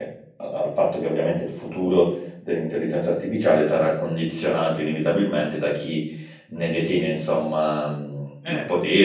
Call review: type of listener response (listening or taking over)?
listening